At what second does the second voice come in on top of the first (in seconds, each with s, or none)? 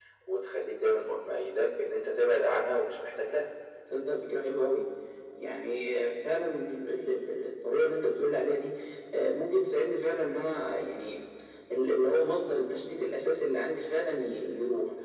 none